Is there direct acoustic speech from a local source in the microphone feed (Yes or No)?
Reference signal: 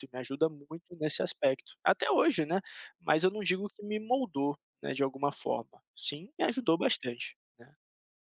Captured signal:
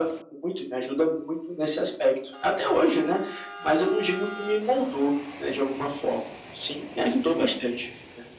No